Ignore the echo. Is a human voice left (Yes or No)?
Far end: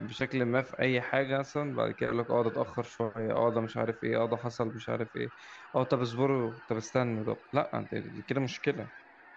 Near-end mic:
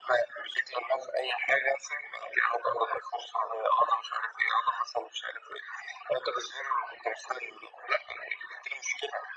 No